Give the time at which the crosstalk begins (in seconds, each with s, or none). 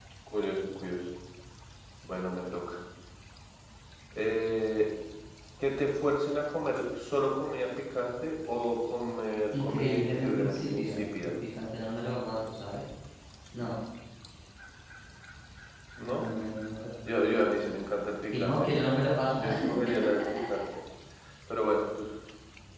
9.5 s